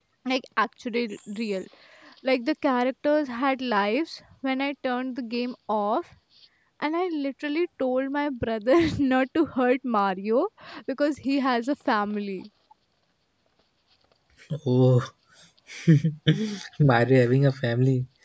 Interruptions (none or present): none